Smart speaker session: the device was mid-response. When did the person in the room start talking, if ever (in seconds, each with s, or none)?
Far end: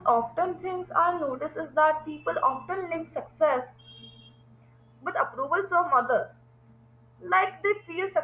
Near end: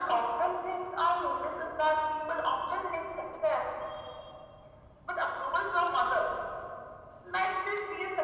none